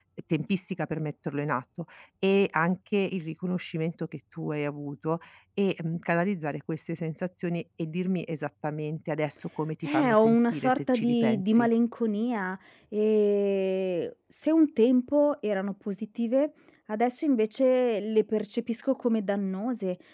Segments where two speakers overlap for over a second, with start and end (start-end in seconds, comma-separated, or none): 9.8-11.7